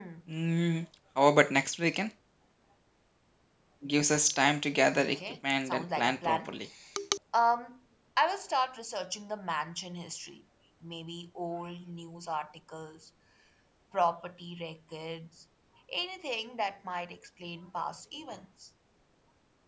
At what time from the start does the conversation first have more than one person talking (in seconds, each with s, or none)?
4.9 s